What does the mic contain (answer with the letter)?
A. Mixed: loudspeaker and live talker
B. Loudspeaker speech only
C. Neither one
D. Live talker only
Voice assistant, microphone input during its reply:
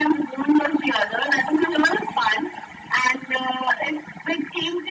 B